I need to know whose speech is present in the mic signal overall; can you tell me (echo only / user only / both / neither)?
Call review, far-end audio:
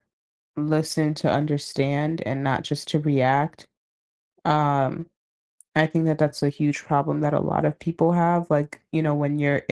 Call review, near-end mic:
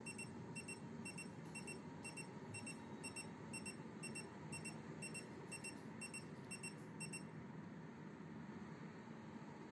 neither